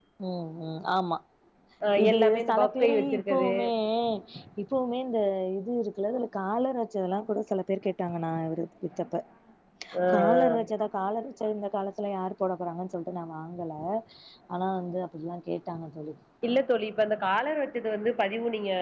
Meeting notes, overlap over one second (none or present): present